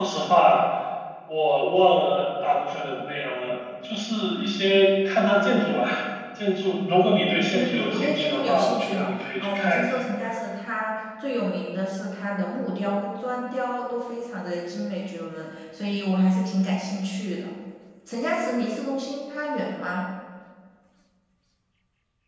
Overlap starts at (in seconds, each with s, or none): 7.5 s